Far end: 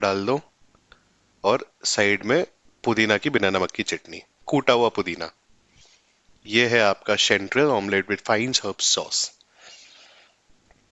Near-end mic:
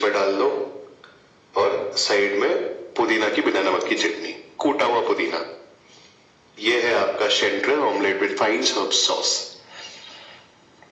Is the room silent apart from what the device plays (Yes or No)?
Yes